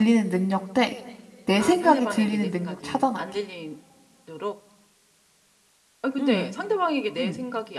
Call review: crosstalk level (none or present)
present